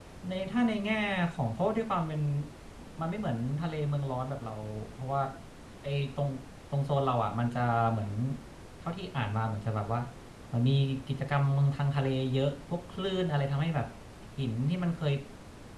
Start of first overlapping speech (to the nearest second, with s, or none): none